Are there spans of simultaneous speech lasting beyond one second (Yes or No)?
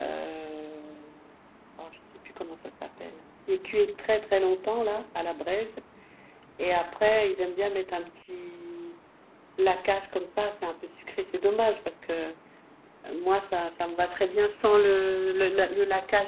No